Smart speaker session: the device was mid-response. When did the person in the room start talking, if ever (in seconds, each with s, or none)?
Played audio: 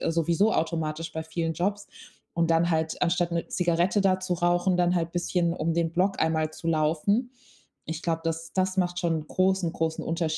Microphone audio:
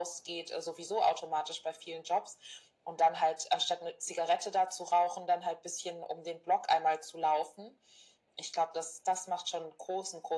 none